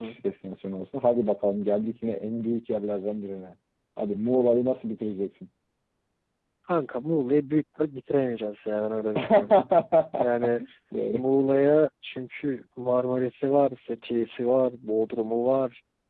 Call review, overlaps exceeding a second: none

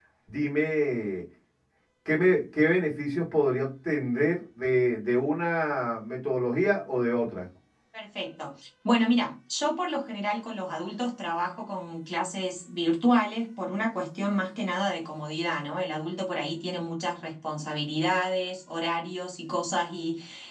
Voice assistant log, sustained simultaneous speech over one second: none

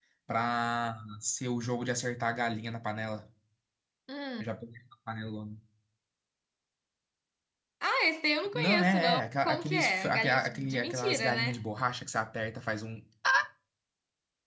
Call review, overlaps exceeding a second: present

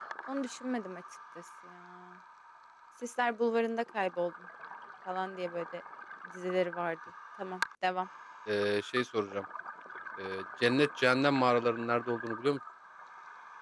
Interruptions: none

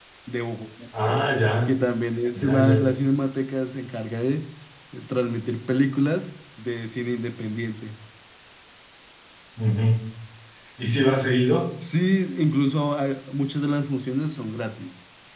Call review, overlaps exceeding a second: none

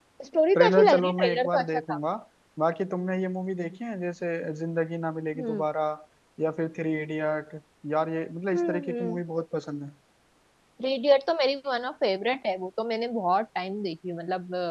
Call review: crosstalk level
present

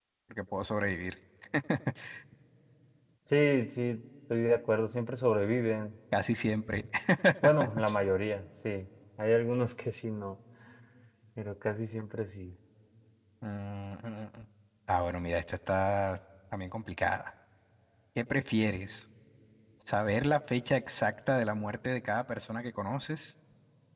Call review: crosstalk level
none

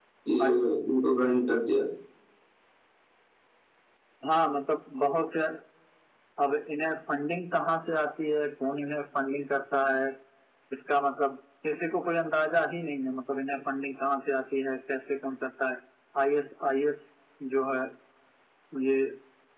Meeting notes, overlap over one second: none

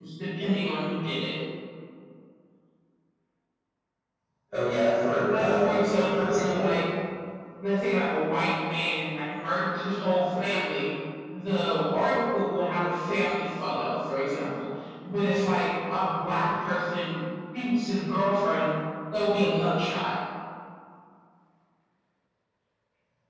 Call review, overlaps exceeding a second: present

